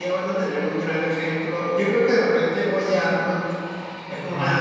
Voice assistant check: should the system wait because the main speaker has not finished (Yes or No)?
Yes